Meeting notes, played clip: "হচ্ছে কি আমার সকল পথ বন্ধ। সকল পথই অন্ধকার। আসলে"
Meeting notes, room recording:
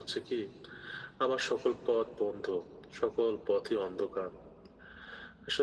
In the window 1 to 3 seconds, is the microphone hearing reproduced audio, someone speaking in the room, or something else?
echo only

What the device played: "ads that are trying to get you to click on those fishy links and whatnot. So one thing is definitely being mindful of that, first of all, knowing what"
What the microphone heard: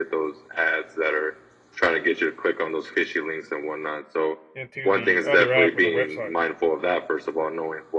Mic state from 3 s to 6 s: both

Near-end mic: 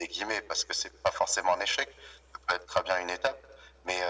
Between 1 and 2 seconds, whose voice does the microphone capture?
echo only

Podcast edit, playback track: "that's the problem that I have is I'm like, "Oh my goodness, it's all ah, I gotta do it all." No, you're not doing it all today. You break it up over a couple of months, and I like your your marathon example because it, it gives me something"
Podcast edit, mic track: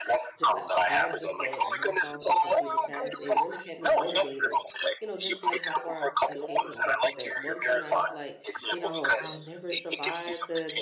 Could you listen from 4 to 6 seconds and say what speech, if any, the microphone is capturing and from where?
both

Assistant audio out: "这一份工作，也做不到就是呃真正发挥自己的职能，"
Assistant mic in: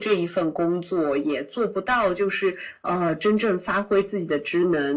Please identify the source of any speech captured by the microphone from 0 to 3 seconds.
echo only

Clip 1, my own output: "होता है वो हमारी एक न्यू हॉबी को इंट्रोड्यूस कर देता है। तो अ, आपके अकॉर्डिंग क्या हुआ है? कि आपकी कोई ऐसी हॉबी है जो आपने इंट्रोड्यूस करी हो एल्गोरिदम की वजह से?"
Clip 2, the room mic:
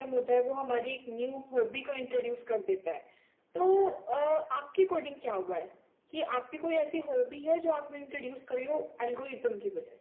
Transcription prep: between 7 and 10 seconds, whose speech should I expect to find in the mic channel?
echo only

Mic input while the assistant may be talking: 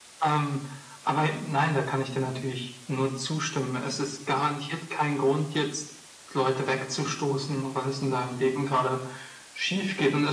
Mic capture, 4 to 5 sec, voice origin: echo only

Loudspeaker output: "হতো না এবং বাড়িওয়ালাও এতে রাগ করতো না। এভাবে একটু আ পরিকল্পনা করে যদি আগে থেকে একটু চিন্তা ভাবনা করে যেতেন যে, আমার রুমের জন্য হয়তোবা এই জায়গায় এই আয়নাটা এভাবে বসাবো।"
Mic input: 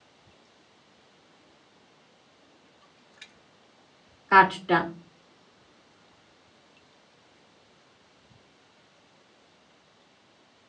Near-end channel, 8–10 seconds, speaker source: neither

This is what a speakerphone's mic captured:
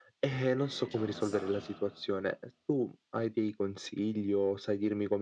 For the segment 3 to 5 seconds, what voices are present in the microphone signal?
echo only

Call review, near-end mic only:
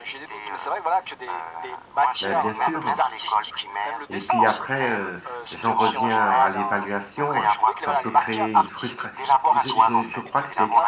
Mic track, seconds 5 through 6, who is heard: both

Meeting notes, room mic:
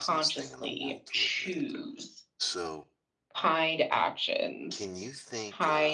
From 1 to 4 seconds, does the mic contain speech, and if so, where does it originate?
both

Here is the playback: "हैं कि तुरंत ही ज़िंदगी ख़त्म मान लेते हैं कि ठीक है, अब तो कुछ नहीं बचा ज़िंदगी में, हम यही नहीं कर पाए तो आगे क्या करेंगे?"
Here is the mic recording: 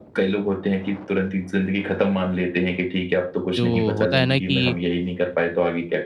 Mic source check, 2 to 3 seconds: echo only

